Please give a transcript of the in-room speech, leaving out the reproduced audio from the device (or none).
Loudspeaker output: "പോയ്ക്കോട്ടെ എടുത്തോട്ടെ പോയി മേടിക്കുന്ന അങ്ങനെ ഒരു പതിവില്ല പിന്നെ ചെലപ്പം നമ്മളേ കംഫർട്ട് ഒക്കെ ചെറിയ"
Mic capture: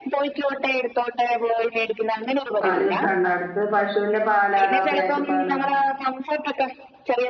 പാല് കിട്ടാണ്ട അട്ത്ത് പശുന്റെ പാലാ അതോ പേക്ക് പാലോ